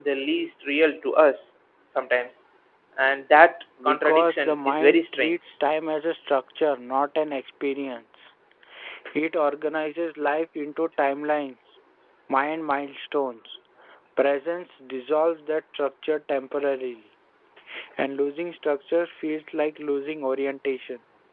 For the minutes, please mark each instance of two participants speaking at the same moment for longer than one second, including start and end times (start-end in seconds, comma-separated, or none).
3.9-5.4